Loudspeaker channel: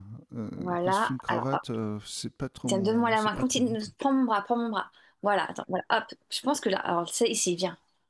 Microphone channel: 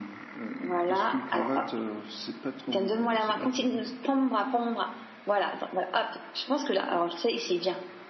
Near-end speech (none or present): none